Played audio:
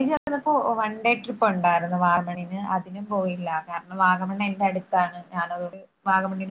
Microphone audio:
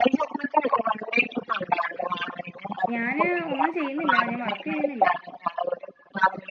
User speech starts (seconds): 2.9 s

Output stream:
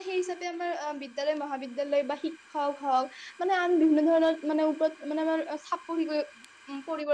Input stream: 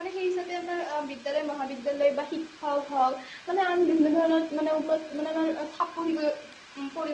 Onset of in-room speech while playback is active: none

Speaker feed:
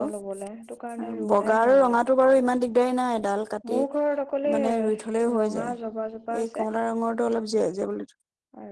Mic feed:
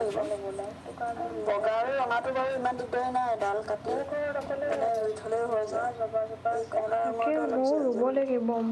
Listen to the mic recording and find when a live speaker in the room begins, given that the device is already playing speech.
7.0 s

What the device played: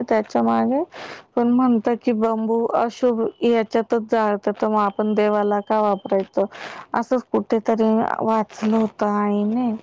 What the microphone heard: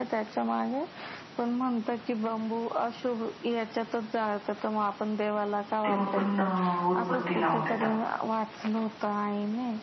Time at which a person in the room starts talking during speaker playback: 5.8 s

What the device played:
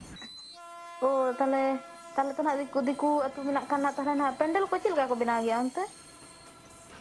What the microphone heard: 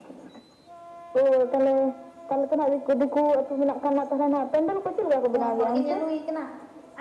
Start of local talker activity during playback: 5.3 s

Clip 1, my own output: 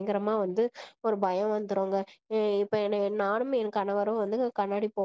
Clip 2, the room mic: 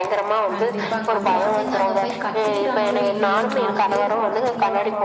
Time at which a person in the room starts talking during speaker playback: 0.5 s

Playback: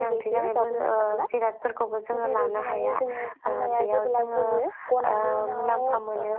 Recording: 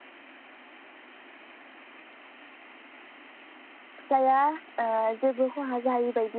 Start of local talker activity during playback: 4.0 s

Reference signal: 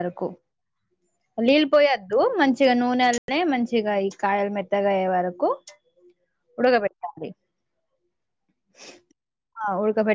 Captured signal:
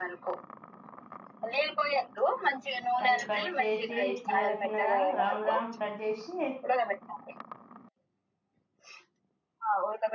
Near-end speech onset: 3.0 s

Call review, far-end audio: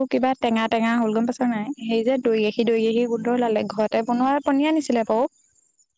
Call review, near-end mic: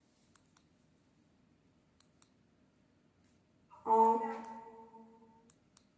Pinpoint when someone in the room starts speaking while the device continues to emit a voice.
3.8 s

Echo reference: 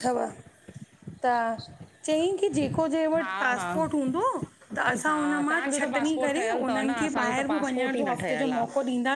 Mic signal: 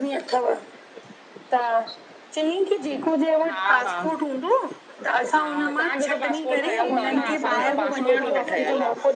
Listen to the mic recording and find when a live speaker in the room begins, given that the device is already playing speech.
6.6 s

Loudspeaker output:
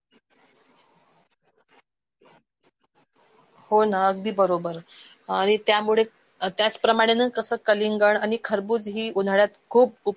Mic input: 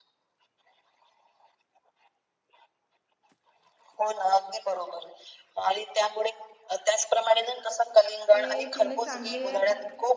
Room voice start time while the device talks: 8.3 s

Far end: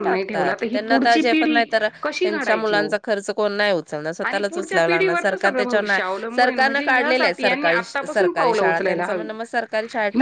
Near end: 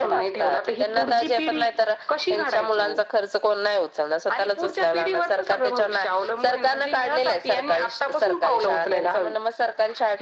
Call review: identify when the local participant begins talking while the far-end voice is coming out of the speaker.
none

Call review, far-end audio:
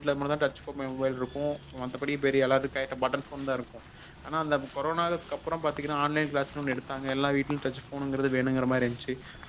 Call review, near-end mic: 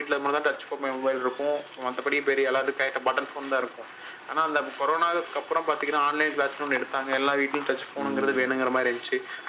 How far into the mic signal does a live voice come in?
8.0 s

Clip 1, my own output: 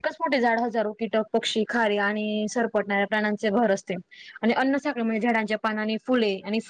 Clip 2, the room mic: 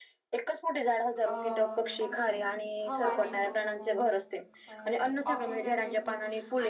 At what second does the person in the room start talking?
1.2 s

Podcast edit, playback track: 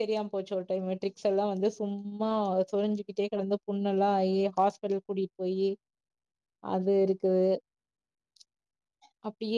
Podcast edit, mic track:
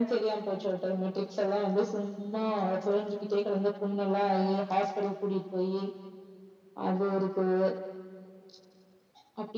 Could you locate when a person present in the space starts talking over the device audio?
none

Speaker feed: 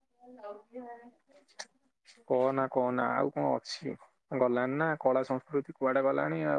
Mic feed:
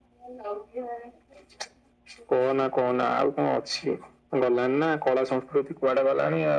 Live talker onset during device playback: none

